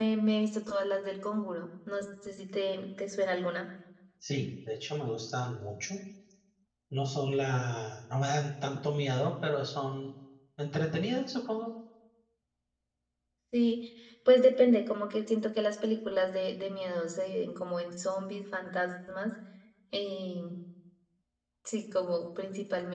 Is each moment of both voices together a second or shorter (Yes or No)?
Yes